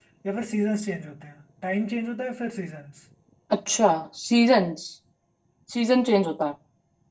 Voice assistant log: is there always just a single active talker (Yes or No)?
Yes